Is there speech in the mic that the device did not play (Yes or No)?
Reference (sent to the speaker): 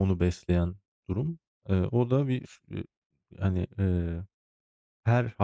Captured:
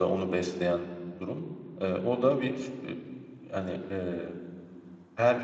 No